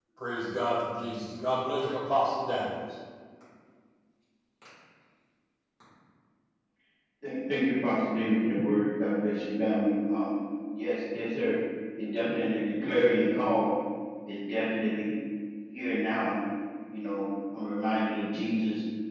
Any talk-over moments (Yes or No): No